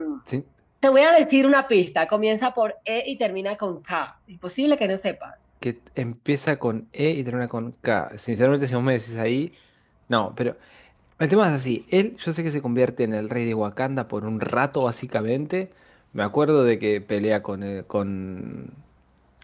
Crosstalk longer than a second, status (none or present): none